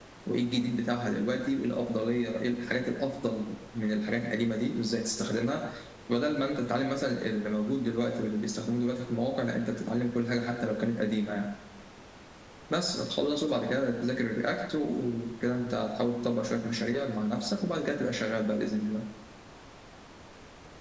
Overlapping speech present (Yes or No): No